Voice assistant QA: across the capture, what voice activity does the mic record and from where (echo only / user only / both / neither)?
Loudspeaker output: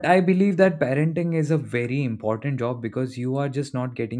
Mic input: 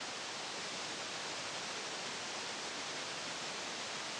neither